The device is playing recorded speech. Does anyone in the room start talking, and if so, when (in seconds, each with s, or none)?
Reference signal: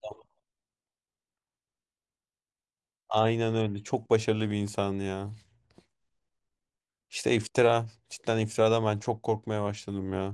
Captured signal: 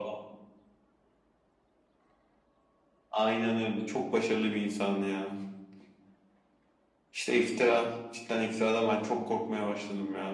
none